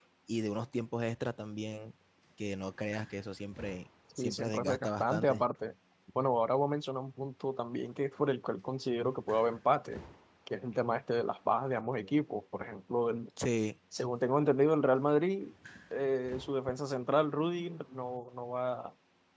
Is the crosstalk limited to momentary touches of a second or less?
No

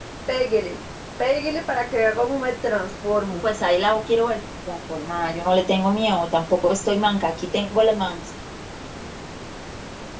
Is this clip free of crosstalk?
Yes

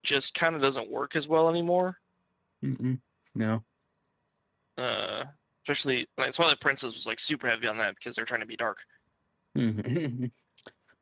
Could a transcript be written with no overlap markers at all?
Yes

